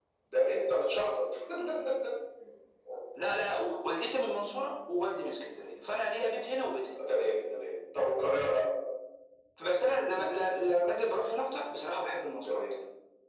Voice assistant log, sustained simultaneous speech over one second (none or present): none